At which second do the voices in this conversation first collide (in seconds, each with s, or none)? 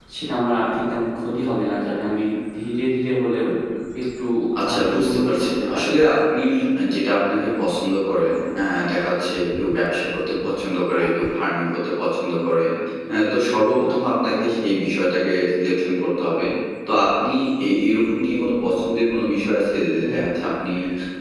4.7 s